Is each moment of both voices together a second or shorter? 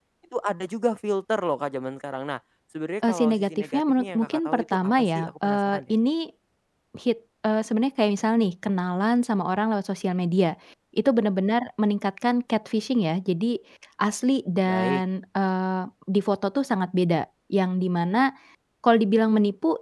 No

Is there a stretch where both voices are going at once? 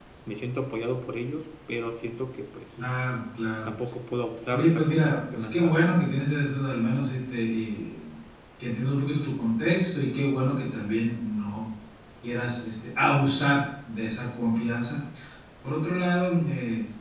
Yes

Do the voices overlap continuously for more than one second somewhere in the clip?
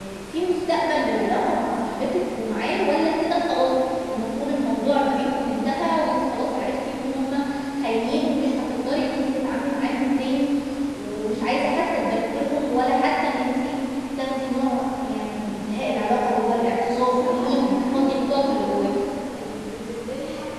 Yes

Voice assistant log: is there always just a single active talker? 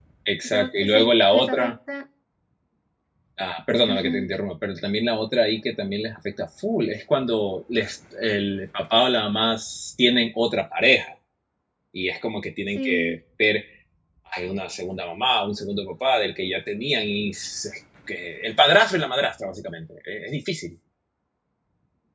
No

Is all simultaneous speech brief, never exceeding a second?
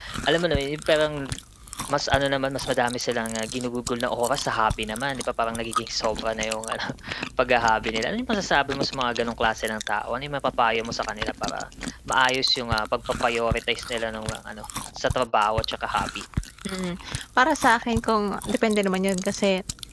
Yes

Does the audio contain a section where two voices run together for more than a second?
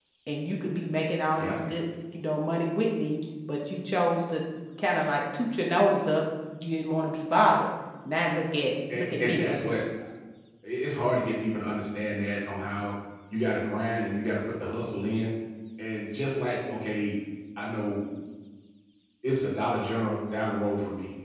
No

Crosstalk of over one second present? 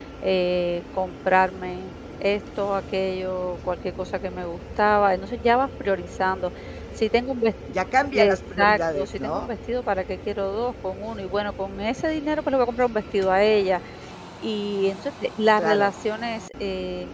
Yes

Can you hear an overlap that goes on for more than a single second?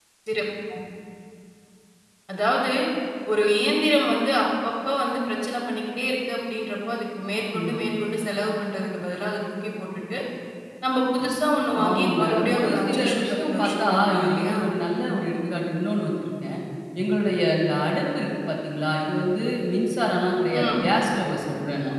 Yes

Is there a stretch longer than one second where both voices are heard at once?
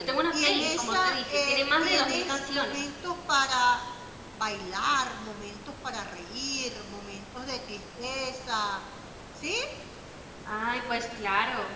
Yes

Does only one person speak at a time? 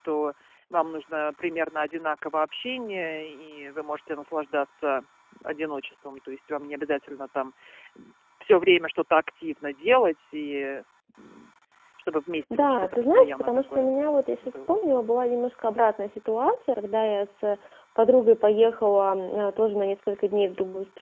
No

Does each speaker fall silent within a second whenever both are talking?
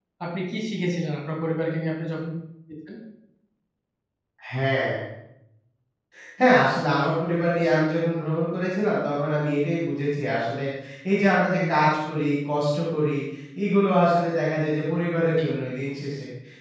Yes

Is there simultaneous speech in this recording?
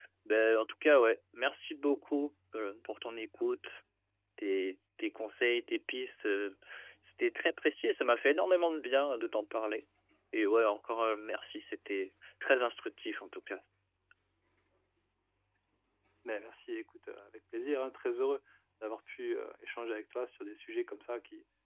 No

